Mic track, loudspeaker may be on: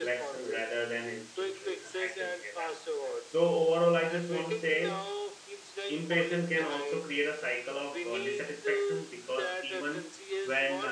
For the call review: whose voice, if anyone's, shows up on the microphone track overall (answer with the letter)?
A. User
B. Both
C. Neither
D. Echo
B